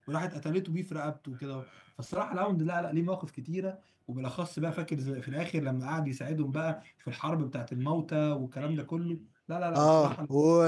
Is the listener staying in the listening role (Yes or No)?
No